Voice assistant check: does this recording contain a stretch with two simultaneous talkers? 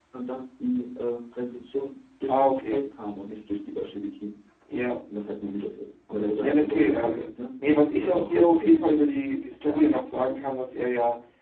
Yes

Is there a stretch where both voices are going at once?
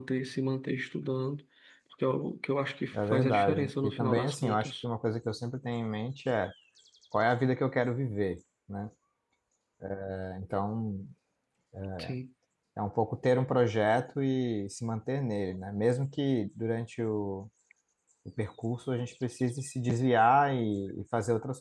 Yes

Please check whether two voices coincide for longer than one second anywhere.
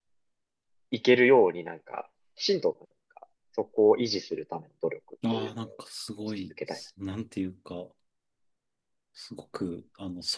No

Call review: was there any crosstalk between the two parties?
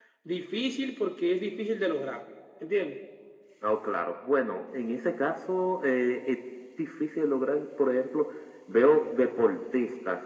No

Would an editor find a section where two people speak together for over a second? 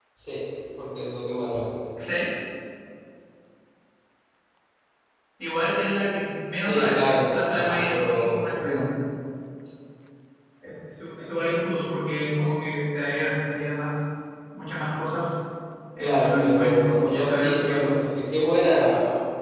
Yes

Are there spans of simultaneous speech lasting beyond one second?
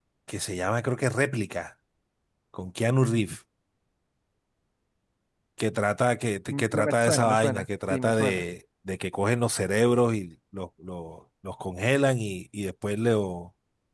Yes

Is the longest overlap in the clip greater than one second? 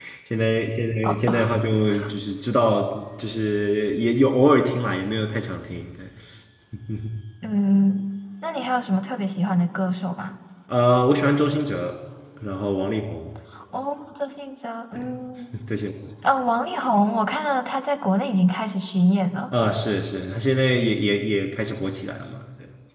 No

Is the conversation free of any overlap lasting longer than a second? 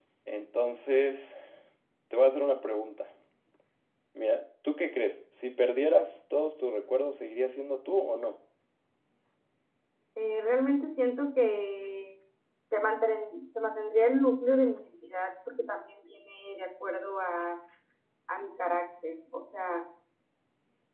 Yes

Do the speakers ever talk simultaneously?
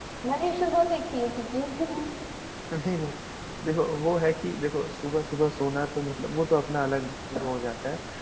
No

